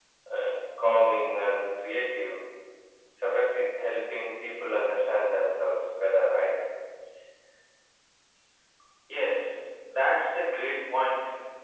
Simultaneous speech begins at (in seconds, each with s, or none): none